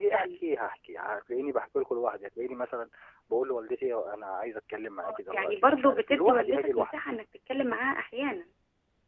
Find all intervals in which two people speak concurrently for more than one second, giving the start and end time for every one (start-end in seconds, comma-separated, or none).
5.0-6.9